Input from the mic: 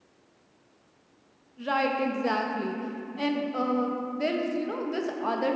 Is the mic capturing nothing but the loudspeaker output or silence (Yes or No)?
No